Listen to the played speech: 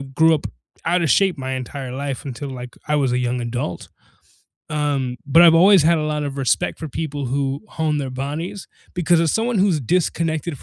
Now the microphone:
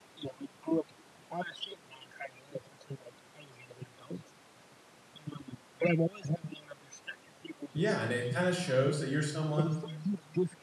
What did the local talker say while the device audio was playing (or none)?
Yeah, and it kinda shows that you're someone